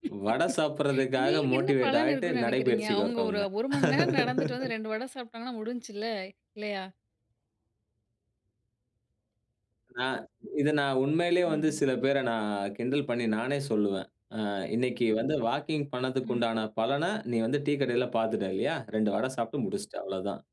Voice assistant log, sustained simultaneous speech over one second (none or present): present